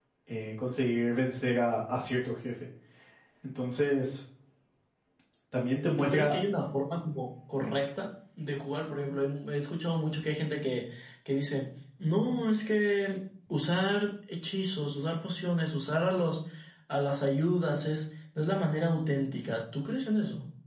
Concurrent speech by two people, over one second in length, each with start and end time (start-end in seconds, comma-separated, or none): none